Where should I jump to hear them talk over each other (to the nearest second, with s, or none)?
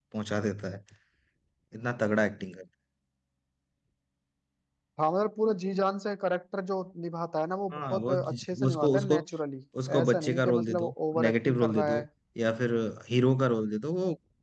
8 s